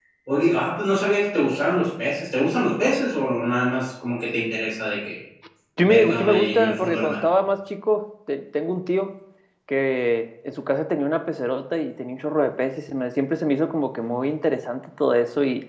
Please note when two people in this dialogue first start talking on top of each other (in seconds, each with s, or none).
5.8 s